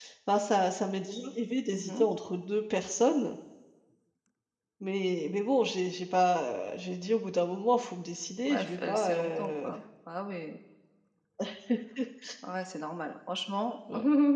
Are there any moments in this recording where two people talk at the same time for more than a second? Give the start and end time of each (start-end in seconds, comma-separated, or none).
8.5-9.7